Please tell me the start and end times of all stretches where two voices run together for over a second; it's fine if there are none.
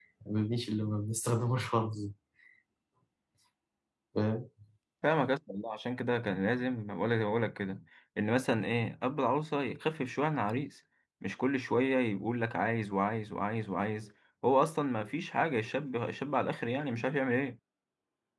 none

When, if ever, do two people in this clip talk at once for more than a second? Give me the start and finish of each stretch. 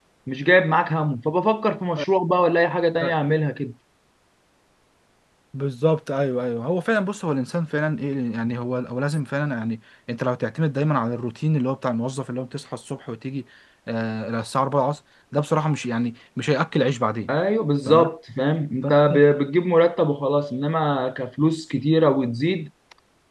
none

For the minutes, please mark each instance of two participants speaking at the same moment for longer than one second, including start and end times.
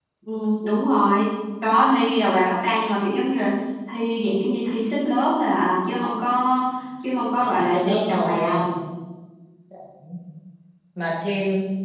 7.4-8.6

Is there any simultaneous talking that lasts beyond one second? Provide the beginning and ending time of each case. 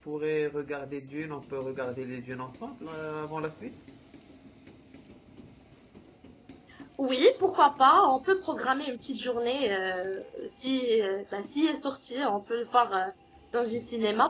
none

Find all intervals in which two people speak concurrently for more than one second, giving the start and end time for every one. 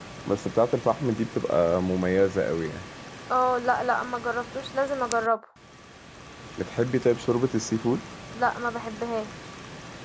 none

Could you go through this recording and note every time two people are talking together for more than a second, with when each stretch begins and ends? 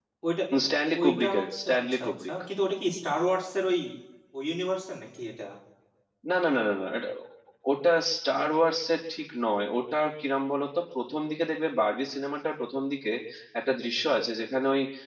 1.0-2.3

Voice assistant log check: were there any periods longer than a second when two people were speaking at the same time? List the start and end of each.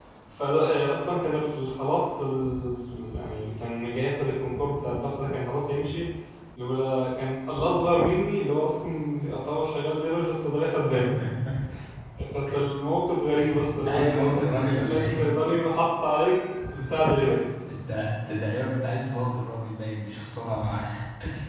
13.6-15.3

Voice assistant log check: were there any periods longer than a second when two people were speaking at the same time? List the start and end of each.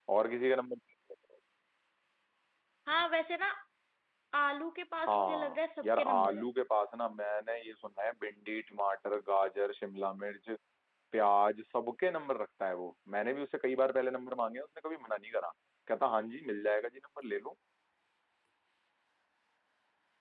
5.1-6.5

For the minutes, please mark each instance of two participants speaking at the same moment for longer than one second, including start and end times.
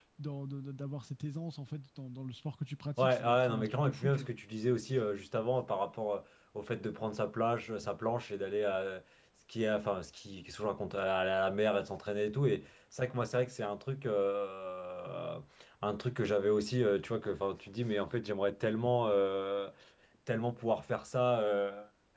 3.0-4.3

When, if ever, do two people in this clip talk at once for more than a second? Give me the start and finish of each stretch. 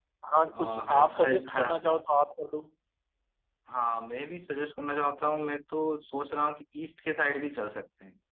0.5-1.7

